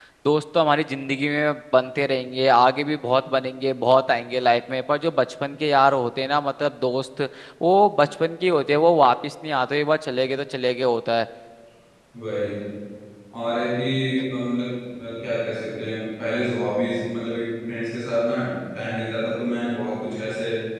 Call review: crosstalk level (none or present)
none